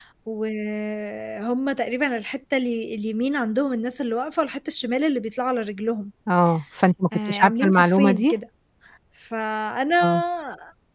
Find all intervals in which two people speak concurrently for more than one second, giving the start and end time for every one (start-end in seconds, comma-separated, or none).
7.1-8.3